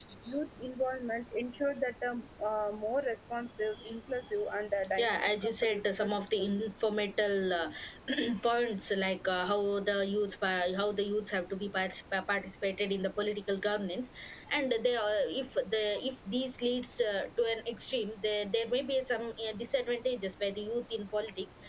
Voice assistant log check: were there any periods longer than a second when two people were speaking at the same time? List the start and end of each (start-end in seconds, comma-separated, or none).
5.0-6.5